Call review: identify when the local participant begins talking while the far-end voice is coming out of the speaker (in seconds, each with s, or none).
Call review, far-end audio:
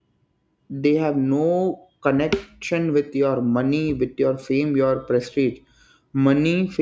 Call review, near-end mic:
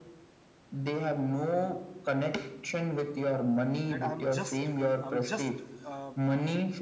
3.9 s